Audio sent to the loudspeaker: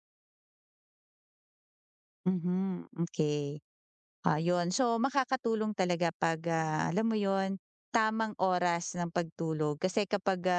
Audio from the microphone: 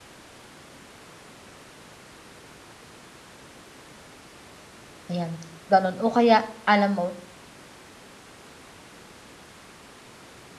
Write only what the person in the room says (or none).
ayan gano'n. O kaya alam mo